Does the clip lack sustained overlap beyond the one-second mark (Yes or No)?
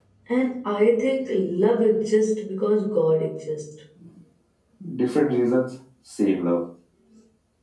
Yes